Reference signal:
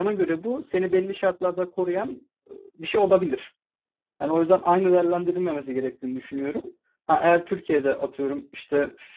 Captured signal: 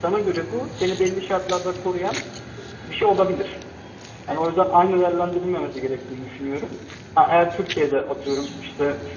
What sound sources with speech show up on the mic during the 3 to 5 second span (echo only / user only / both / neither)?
echo only